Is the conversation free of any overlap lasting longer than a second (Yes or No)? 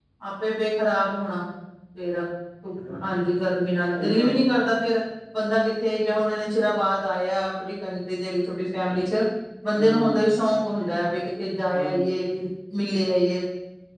Yes